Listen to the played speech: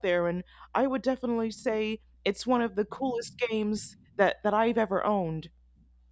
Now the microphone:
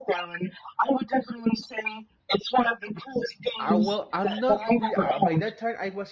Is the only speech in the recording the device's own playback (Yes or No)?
No